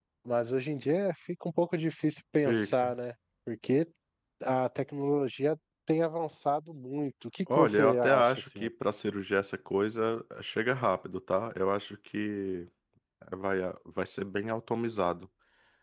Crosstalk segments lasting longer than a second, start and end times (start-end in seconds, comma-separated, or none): 7.5-8.7